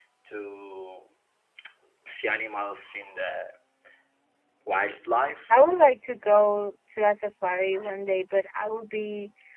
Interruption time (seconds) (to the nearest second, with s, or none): none